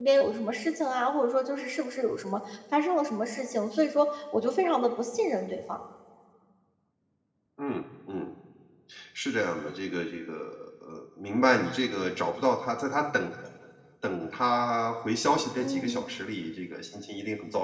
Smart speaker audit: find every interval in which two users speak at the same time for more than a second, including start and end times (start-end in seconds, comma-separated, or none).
none